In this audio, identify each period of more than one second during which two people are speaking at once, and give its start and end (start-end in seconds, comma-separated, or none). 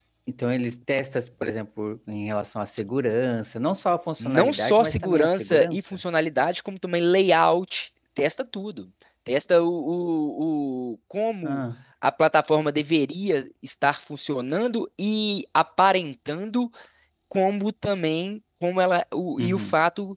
4.2-6.0